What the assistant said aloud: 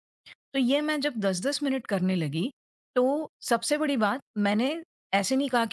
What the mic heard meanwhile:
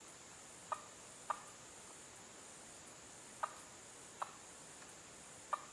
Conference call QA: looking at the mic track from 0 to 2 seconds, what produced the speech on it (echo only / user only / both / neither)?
neither